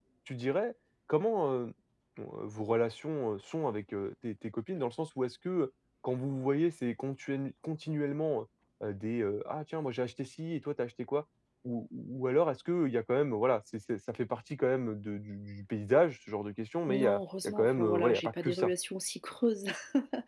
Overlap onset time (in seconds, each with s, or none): 16.9 s